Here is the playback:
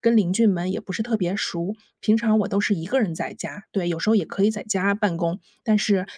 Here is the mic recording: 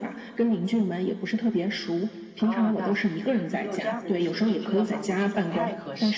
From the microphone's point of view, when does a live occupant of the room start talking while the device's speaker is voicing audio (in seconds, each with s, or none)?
2.4 s